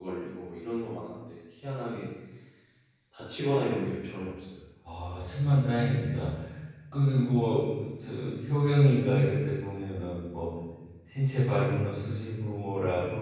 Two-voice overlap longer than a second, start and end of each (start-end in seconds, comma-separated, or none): none